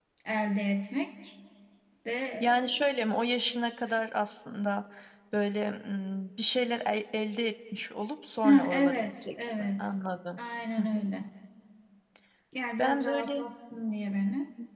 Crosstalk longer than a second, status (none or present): present